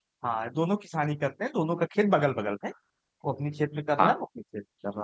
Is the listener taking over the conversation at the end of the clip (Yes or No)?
No